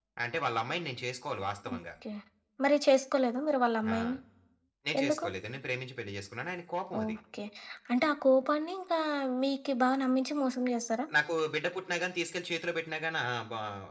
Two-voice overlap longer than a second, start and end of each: none

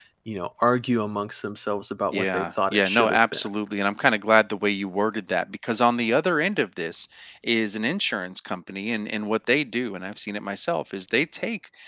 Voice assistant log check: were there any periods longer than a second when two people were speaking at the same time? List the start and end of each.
2.1-3.5

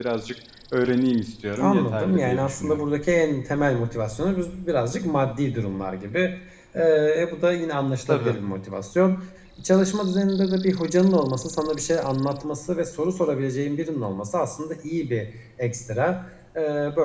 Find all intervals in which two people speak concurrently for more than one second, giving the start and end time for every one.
1.6-2.9

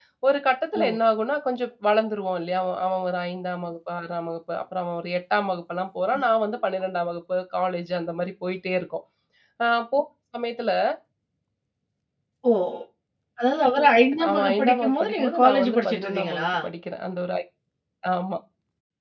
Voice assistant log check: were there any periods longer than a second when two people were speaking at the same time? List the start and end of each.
14.3-16.5

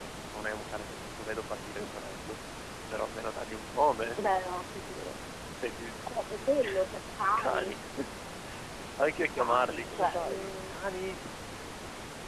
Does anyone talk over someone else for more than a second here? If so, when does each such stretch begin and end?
9.4-10.7

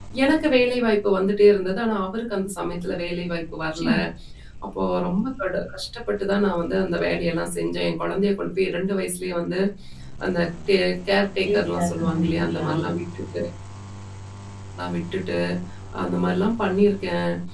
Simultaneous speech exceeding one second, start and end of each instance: 11.4-12.7

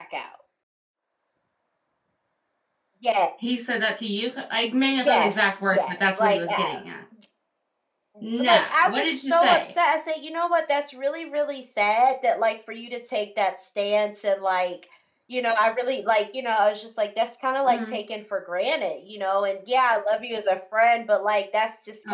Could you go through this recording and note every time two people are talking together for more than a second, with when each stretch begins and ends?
5.0-6.7, 8.5-9.7

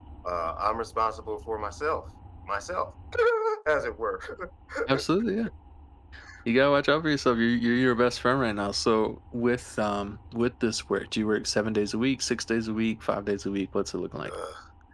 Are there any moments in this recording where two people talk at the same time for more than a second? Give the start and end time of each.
none

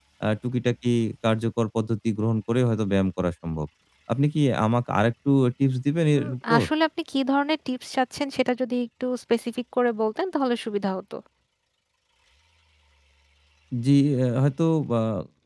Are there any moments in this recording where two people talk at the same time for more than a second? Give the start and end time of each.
none

